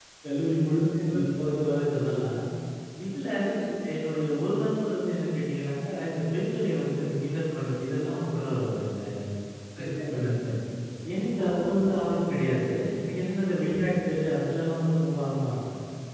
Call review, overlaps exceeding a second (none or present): none